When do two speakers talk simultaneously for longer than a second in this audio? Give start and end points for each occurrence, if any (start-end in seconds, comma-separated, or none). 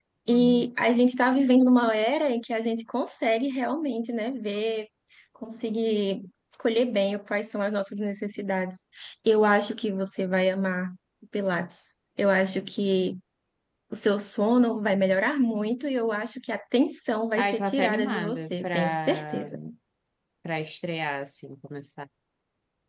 17.4-19.5